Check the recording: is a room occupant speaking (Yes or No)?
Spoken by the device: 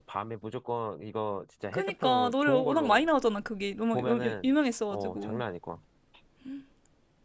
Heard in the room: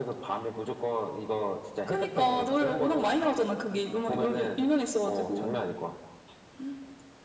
Yes